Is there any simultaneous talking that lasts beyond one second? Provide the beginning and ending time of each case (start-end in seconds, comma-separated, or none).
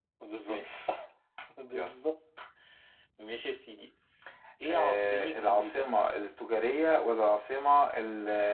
4.7-5.9